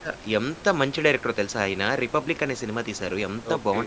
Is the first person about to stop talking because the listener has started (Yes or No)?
No